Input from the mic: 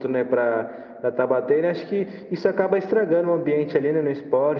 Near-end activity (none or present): none